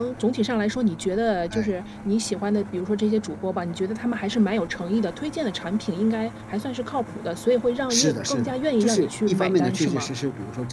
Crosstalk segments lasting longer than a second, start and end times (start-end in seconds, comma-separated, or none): 7.9-10.1